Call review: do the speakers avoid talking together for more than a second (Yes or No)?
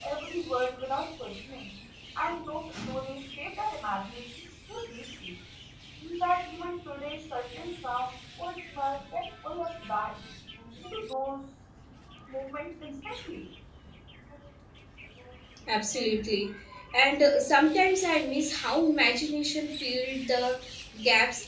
Yes